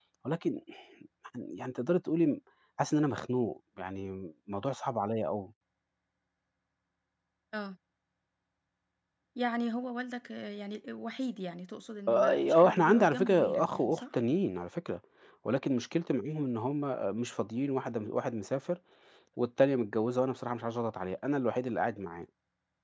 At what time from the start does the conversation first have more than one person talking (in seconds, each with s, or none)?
12.1 s